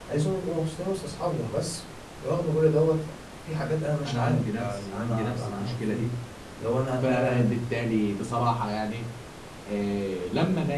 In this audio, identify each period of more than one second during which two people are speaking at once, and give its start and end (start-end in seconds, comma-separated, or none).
4.0-6.0